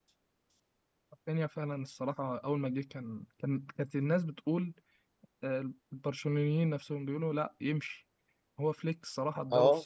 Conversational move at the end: listening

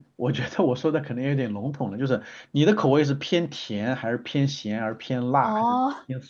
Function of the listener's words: taking over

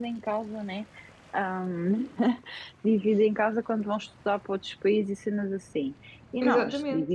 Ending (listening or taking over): listening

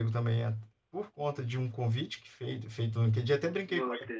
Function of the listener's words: listening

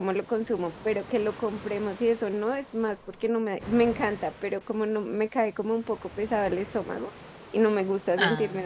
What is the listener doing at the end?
listening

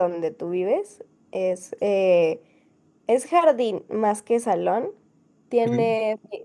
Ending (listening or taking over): listening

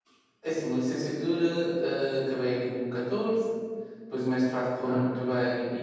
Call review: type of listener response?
listening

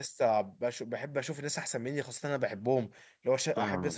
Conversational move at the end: listening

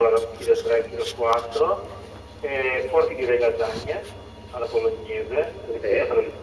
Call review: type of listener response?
listening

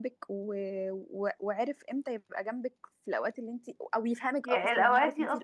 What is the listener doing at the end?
taking over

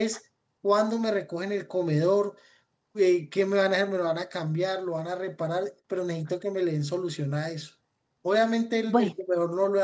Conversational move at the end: listening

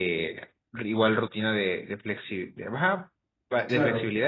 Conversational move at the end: listening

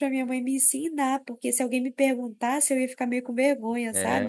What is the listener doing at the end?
taking over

